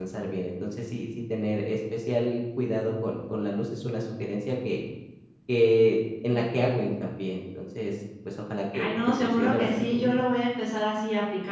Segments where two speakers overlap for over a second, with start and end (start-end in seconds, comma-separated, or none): 8.7-10.1